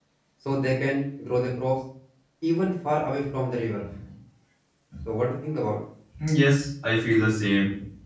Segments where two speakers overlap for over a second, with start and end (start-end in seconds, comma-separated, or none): none